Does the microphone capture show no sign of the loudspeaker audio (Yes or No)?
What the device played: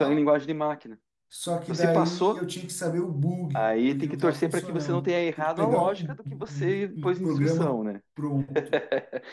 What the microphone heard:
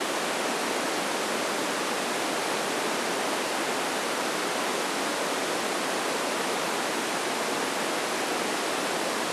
Yes